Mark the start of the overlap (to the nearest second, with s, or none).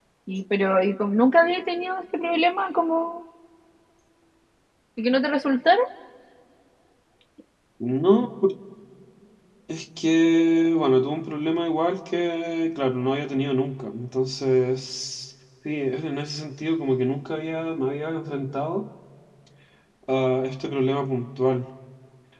none